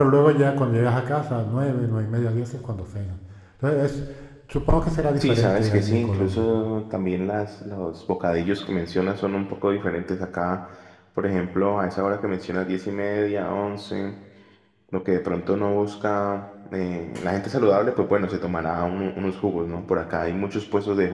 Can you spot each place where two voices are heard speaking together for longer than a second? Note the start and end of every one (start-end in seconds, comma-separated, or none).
5.2-6.5